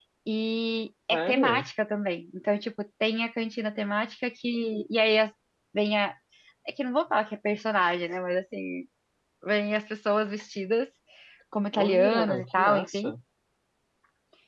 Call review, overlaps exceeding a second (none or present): present